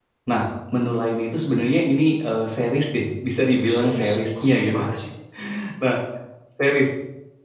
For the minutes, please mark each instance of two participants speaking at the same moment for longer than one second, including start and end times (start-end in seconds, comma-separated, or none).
3.6-4.8